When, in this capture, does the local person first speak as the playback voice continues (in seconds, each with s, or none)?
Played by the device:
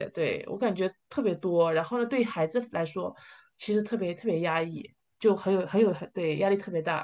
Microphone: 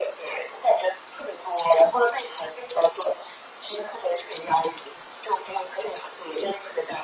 none